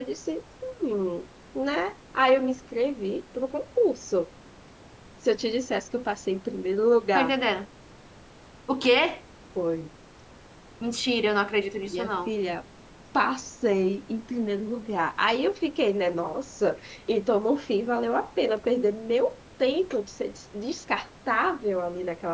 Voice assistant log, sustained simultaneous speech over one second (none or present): none